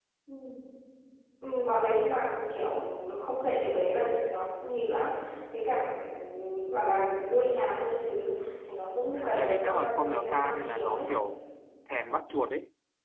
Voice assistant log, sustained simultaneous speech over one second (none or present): present